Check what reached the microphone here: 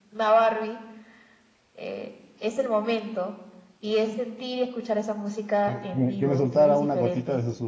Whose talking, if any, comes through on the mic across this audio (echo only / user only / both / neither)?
both